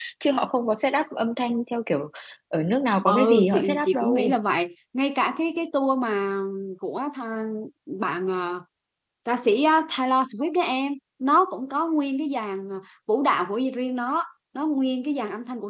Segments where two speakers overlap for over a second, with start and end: 3.0-4.4

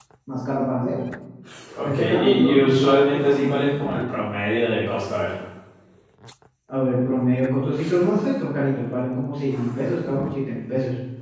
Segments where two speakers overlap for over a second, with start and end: 1.8-3.6

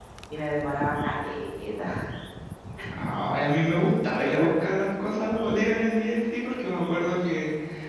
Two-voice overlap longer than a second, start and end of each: none

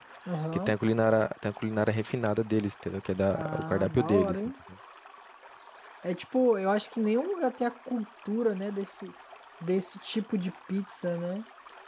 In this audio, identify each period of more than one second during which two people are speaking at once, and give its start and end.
3.3-4.5

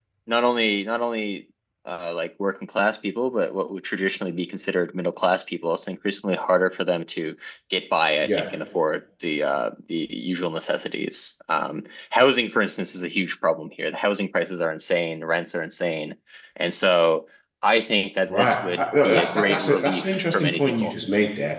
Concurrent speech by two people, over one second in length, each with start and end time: 18.3-20.9

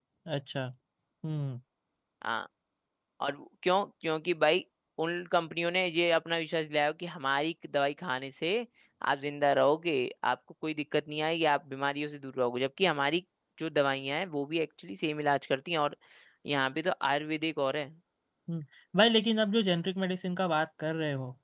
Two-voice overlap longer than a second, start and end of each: none

